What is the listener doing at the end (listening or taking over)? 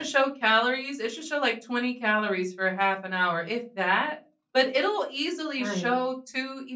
listening